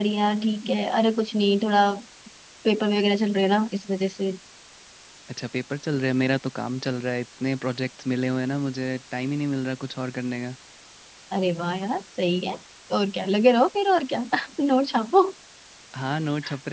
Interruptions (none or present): none